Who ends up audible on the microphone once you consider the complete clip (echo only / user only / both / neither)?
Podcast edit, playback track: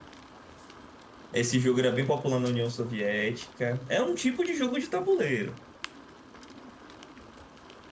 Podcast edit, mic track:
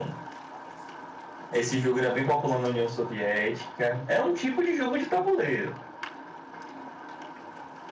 echo only